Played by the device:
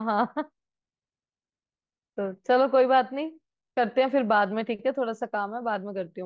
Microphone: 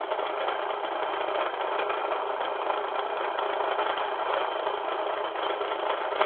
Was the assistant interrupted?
No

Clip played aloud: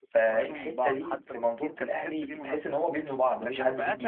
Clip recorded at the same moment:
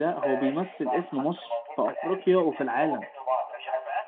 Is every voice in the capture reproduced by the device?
No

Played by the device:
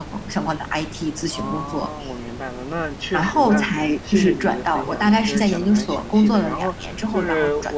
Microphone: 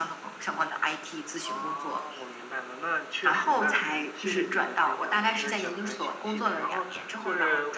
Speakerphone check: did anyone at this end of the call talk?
No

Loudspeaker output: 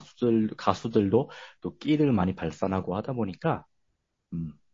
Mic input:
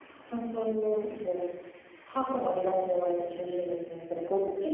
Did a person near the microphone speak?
Yes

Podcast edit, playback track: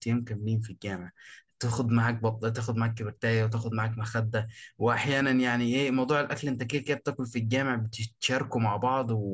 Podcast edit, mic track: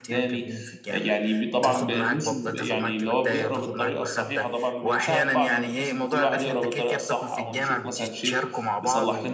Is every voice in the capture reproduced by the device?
No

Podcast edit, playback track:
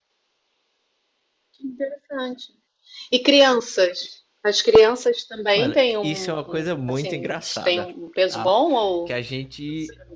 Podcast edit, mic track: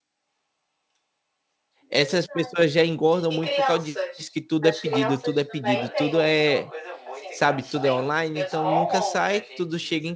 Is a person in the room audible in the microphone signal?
Yes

